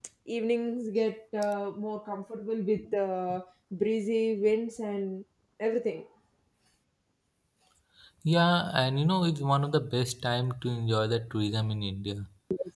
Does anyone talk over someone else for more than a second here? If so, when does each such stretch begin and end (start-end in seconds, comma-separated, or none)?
none